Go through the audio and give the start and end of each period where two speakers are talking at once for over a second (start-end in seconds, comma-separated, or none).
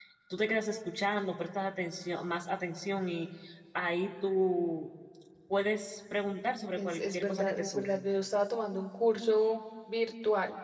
6.8-8.0